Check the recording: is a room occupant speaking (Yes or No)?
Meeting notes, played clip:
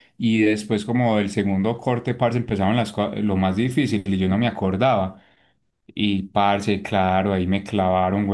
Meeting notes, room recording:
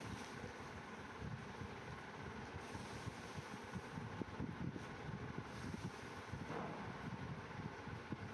No